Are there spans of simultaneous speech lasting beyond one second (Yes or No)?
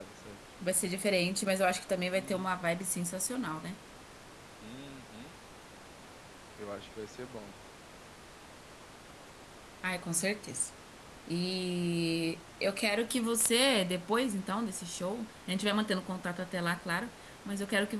No